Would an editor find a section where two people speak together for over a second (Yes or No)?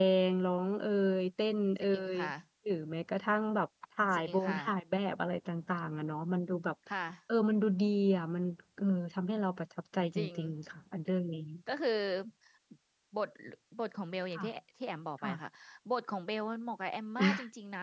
No